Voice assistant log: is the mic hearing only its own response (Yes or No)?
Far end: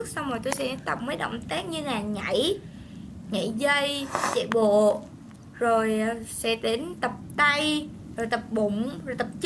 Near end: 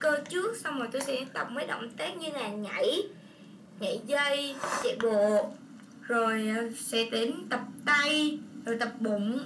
Yes